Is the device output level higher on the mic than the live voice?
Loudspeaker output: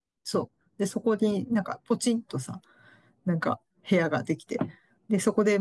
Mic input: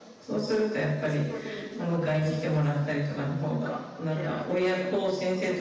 No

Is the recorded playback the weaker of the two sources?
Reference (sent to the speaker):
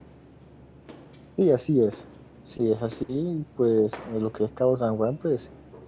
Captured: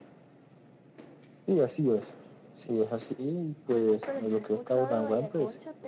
No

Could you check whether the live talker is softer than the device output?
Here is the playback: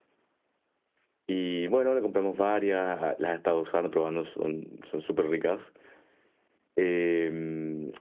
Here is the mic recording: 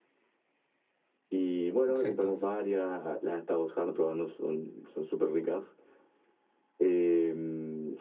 Yes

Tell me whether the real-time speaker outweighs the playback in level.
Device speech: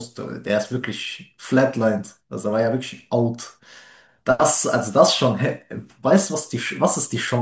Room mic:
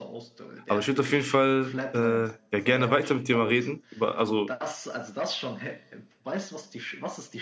Yes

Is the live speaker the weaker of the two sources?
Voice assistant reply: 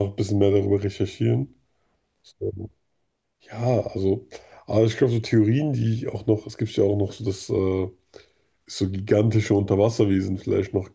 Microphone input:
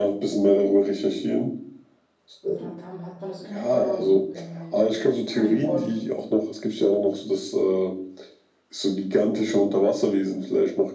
Yes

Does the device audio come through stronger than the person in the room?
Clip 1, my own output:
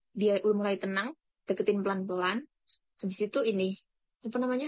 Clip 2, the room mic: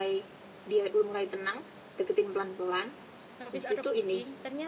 Yes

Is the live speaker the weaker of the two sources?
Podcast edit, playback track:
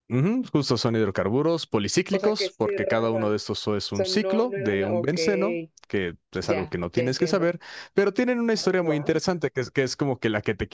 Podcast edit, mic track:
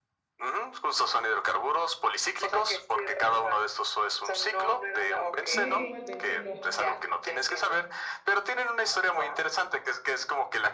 Yes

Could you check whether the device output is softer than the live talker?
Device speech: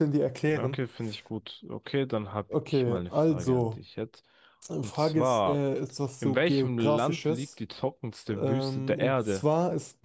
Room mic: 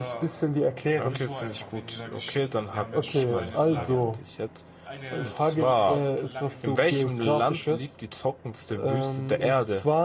No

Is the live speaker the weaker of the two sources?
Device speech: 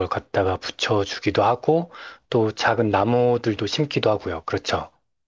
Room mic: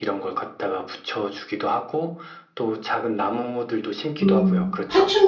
No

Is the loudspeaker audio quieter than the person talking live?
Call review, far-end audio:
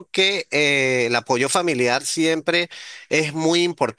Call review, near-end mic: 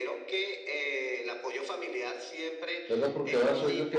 Yes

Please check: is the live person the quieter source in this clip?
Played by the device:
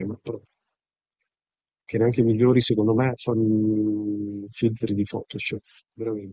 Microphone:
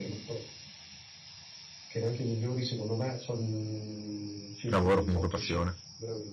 No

